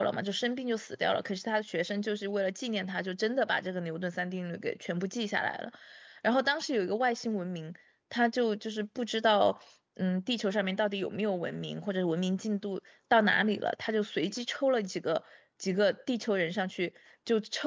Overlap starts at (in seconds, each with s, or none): none